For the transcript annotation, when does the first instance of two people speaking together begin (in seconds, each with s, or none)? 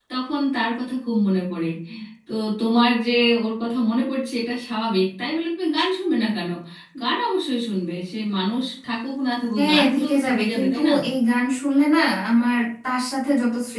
9.6 s